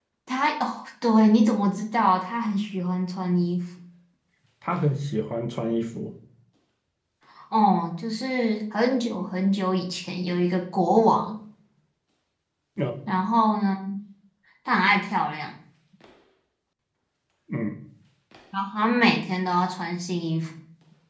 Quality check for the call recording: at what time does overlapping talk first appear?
none

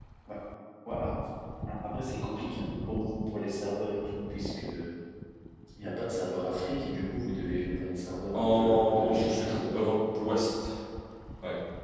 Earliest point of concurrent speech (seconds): 8.3 s

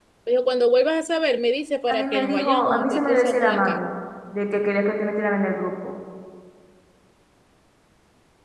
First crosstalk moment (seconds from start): 1.9 s

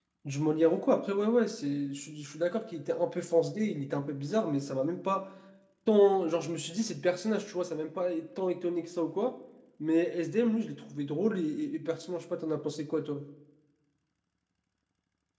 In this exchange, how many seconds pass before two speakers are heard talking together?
none

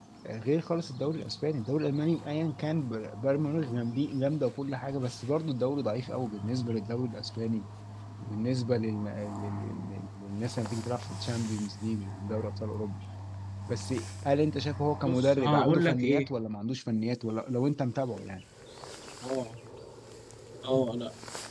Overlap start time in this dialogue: 15.1 s

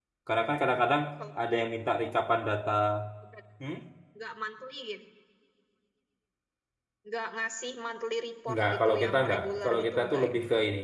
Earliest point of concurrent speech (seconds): 8.5 s

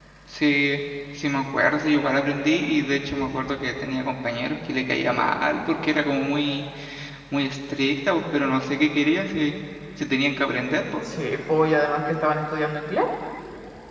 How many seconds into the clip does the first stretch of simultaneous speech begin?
none

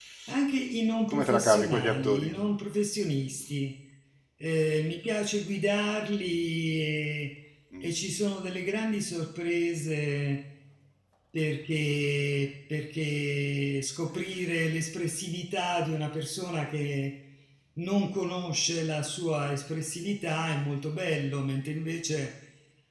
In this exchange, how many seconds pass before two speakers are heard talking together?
1.1 s

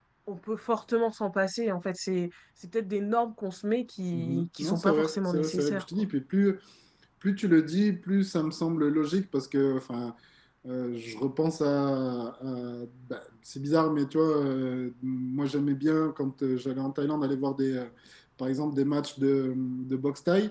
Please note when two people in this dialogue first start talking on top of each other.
4.1 s

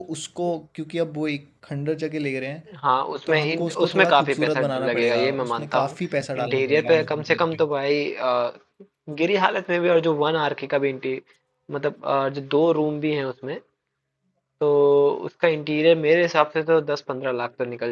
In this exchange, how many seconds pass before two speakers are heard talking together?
3.3 s

